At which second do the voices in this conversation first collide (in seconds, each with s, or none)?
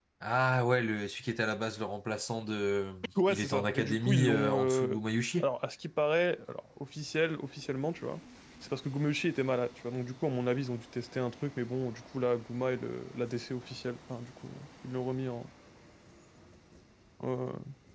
3.2 s